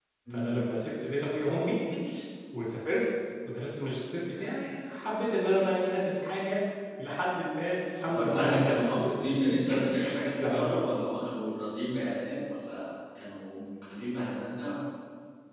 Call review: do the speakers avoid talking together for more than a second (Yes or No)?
No